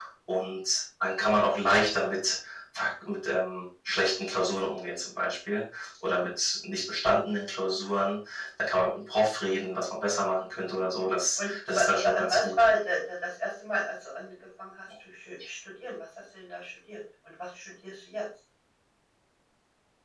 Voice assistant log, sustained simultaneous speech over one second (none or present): present